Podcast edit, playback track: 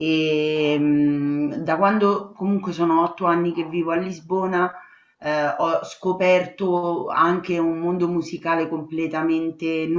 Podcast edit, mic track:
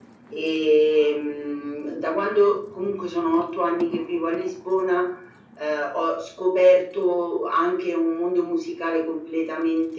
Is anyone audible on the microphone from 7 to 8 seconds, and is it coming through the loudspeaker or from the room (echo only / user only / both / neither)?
echo only